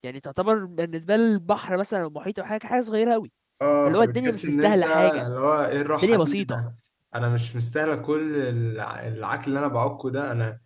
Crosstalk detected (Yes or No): Yes